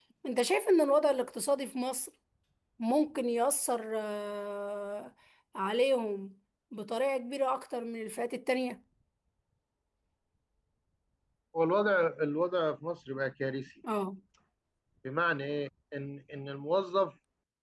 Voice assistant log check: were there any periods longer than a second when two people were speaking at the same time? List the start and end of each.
none

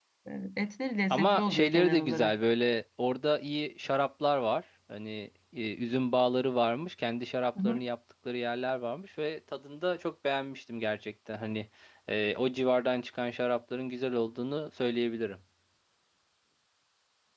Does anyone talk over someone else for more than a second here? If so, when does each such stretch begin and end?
1.1-2.3

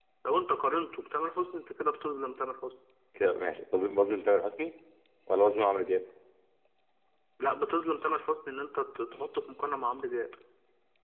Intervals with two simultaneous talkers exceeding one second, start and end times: none

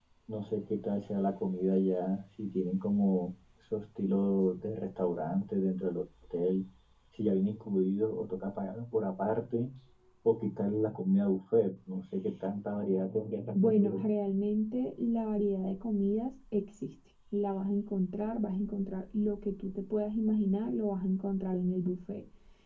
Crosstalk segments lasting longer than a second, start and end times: none

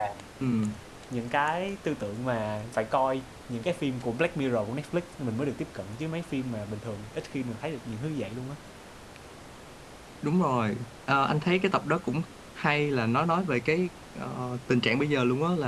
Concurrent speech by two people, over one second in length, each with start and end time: none

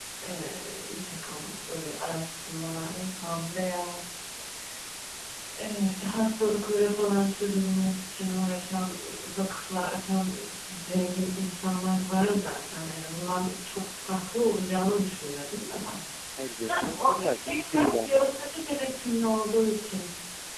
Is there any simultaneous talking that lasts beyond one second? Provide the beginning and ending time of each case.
16.6-18.3

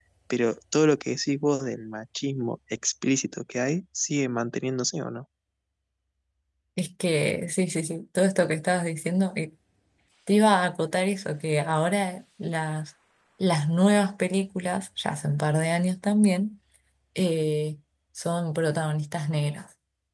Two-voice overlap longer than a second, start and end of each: none

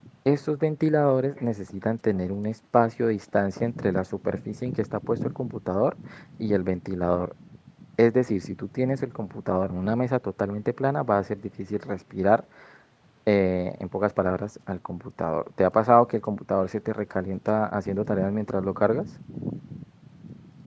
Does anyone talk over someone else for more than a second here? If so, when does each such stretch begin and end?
none

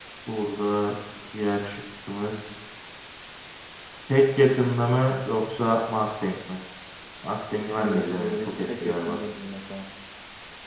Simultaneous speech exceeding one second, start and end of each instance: 7.7-9.2

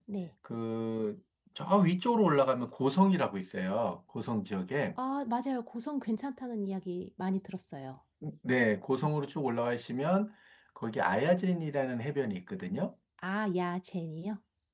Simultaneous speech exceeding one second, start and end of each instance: none

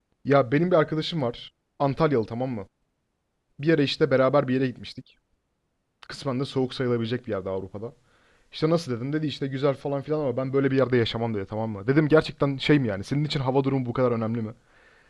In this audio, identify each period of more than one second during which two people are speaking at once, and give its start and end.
none

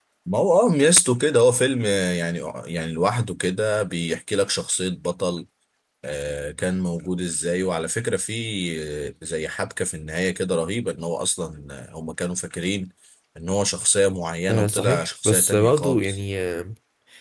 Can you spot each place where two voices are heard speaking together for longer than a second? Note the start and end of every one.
14.5-16.2

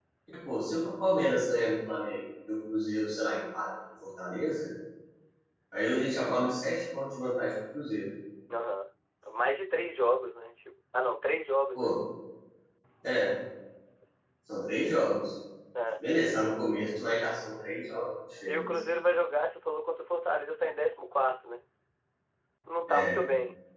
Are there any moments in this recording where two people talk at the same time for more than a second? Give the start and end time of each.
none

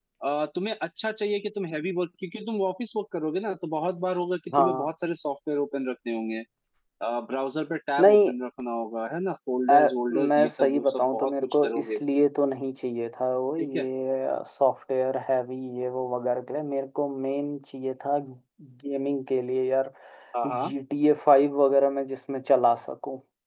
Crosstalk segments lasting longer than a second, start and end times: 9.7-12.0

